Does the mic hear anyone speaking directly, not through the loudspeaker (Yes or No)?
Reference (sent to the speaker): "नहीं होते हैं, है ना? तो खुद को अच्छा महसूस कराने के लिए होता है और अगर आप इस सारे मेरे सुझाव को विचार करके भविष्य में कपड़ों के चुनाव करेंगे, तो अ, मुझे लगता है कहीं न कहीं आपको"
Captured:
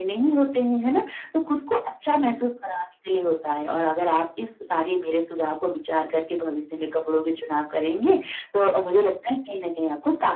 No